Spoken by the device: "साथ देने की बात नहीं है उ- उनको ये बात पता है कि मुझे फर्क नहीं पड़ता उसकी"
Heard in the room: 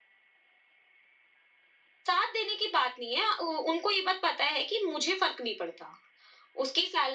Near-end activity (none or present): none